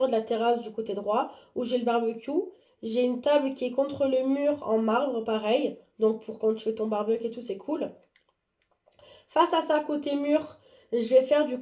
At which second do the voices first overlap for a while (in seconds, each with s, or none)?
none